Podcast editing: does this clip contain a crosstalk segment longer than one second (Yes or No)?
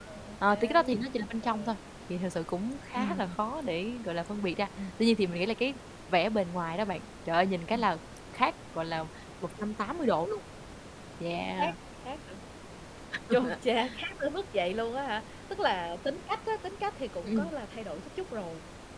No